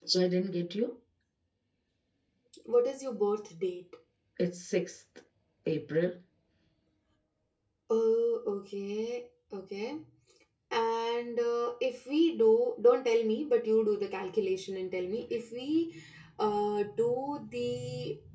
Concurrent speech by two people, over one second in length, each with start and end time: none

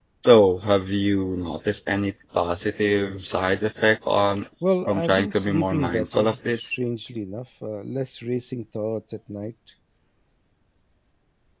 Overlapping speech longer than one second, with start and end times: 4.9-6.7

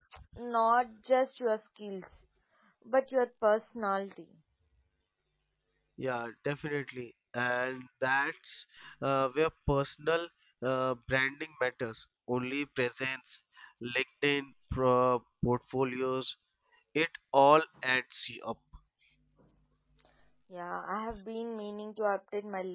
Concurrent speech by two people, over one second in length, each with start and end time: none

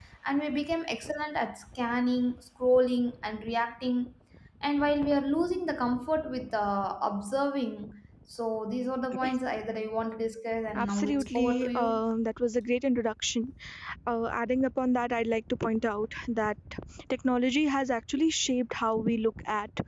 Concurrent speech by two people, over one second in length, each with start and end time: 10.8-12.0

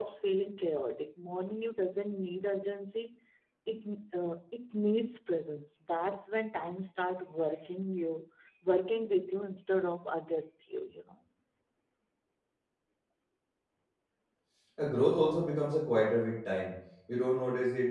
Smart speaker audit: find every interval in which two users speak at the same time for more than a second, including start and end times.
none

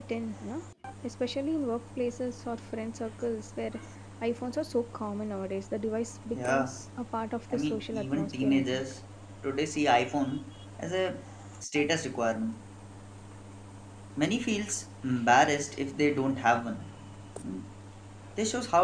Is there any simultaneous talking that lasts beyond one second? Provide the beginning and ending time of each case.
7.5-8.8

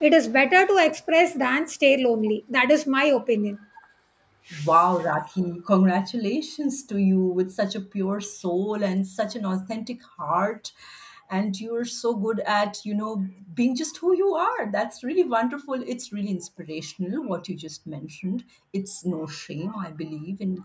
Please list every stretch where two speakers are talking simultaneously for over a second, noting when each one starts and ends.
none

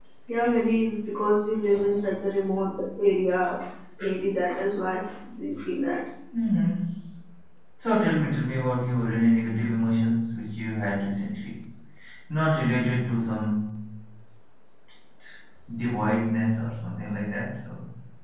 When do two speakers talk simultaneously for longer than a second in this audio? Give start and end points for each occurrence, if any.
none

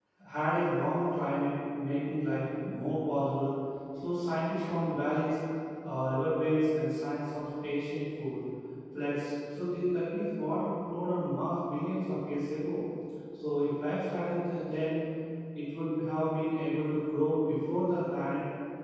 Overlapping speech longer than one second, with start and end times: none

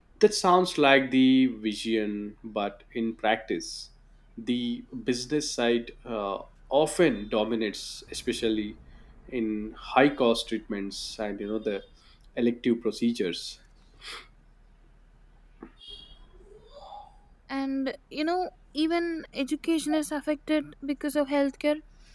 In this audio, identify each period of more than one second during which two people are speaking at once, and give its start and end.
none

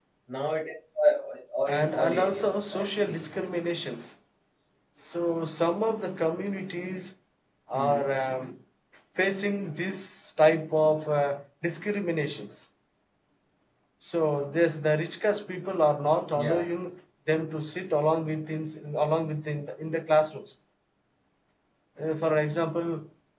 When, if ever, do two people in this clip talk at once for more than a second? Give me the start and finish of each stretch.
1.7-3.2

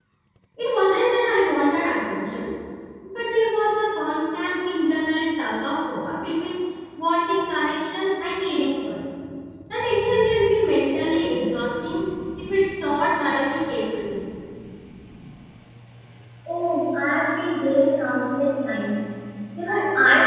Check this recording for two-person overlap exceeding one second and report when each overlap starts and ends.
none

